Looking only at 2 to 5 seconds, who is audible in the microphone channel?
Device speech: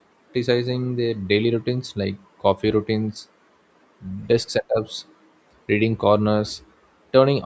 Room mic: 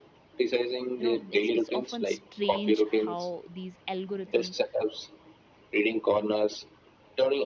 both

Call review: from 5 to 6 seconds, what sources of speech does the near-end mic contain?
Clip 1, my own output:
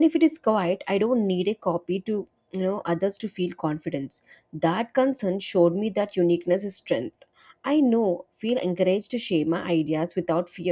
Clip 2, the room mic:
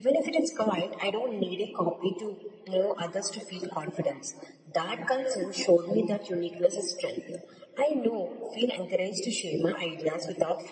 echo only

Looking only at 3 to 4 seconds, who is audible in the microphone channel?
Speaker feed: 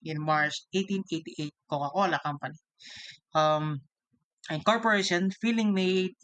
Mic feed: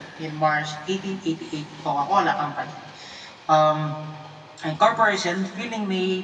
echo only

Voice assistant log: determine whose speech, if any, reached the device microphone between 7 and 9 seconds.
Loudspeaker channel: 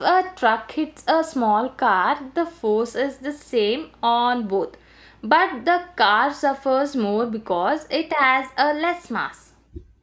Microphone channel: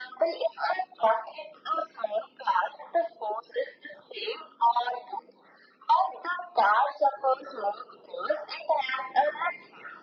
echo only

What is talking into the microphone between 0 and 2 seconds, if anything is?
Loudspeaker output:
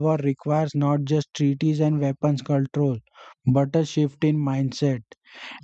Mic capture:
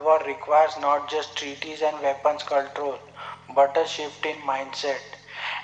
echo only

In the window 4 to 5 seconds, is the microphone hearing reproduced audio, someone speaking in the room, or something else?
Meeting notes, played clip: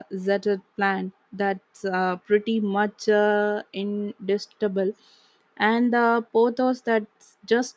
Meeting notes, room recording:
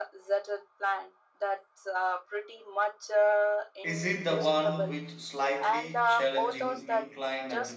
both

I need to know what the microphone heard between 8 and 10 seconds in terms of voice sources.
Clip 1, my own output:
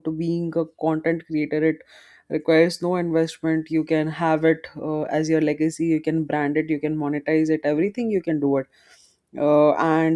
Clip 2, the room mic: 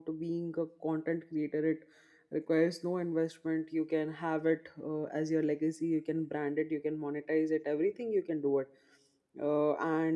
echo only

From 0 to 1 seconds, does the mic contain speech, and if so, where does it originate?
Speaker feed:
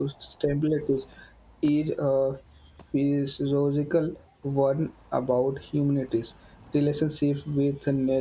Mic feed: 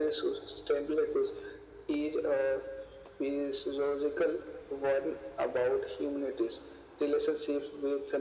echo only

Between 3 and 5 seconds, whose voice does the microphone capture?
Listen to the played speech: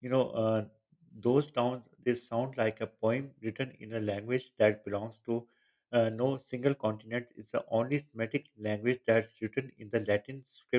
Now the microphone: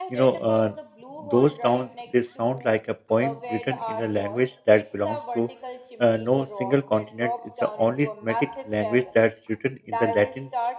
both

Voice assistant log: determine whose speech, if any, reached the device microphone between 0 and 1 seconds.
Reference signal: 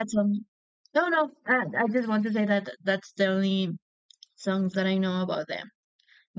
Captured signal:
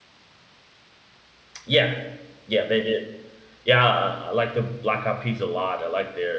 neither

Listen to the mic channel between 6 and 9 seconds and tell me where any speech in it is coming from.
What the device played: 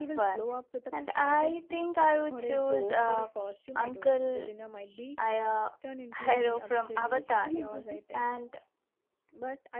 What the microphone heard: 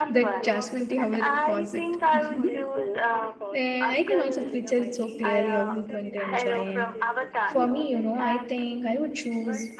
both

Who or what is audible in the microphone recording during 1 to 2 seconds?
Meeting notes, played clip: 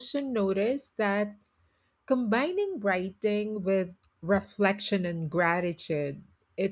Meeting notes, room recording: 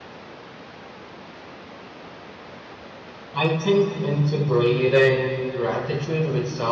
neither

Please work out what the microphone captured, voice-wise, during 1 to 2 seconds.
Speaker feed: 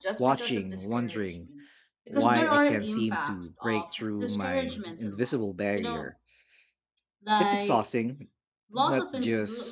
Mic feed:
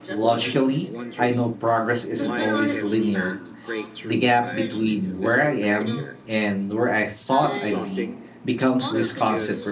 both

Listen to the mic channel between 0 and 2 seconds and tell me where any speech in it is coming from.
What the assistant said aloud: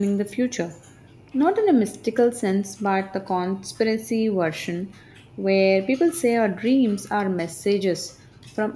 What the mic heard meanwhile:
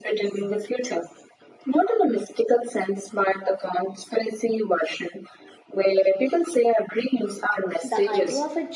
echo only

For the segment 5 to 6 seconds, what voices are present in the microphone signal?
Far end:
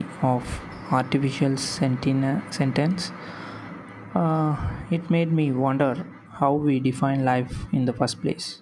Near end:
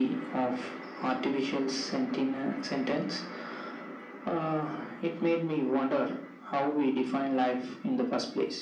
echo only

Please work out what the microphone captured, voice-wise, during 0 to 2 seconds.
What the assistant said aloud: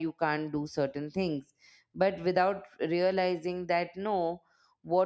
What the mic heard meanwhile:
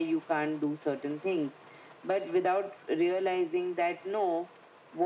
echo only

